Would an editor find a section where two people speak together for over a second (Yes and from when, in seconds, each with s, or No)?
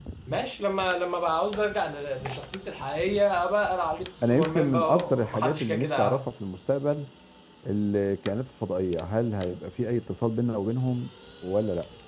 Yes, from 4.2 s